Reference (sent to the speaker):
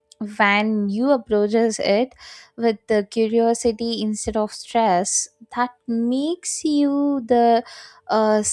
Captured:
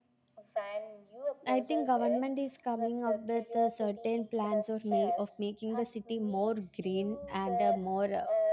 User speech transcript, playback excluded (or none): i think government is coming up with uh, certain plans or may of making the city more green and uh, more uh,